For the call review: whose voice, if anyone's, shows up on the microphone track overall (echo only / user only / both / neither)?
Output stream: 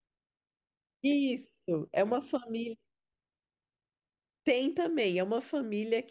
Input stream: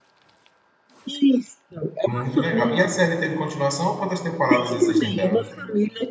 both